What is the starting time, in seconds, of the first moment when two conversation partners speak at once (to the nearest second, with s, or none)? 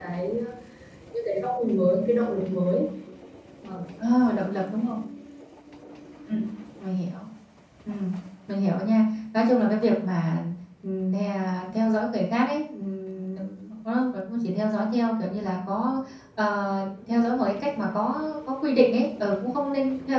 none